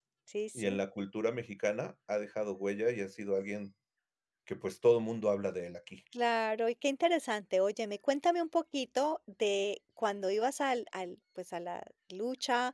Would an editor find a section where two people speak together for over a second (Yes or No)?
No